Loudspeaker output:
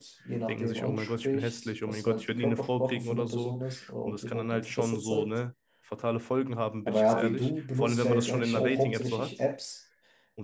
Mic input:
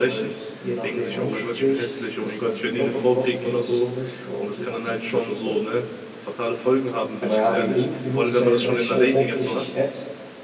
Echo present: Yes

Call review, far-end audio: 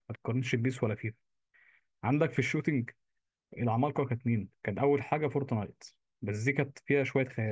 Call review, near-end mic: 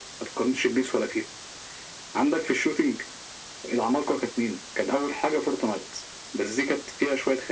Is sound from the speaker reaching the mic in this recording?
Yes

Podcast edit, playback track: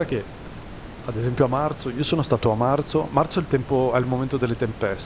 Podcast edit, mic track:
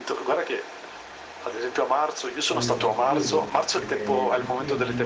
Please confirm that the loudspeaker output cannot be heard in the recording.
No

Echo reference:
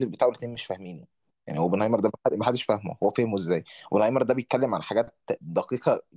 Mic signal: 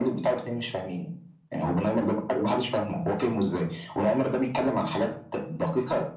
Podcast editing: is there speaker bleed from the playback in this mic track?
Yes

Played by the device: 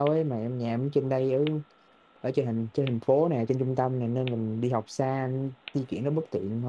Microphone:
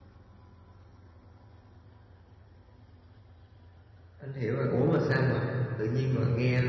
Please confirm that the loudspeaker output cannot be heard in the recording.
Yes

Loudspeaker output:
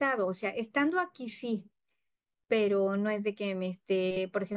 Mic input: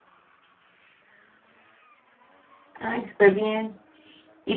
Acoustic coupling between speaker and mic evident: No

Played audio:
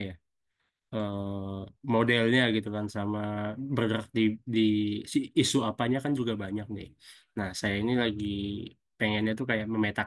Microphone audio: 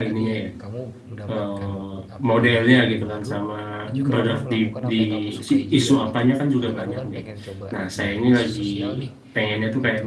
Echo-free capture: No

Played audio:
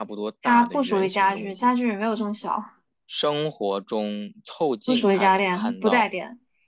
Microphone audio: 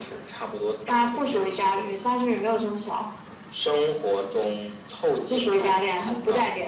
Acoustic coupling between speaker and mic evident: Yes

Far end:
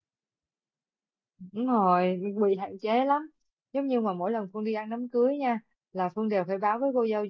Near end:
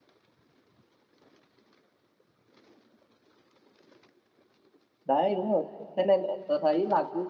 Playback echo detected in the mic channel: No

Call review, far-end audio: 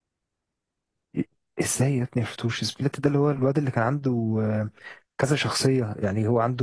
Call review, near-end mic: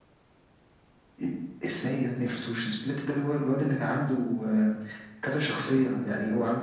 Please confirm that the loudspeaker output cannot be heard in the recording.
No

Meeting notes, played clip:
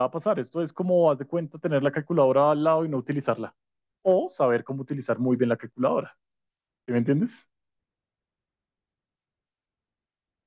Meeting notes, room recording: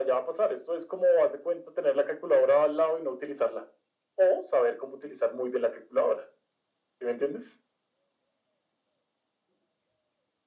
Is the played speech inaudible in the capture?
No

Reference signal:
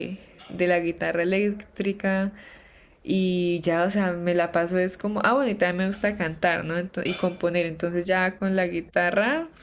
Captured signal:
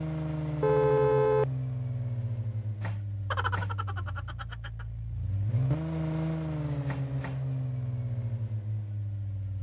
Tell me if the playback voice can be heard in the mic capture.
No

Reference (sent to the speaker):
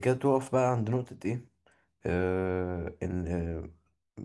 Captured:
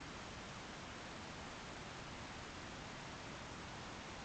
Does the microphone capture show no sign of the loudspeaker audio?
Yes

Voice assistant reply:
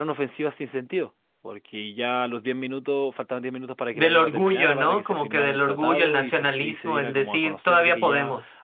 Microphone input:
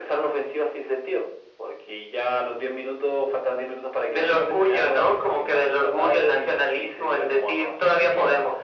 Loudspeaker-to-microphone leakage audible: Yes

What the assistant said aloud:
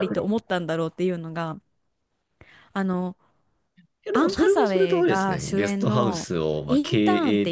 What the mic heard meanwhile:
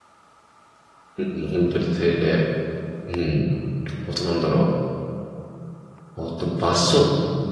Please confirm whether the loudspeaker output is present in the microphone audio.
No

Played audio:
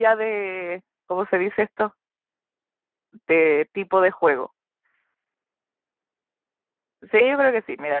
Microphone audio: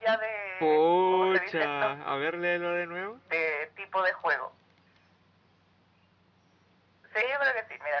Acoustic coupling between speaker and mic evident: Yes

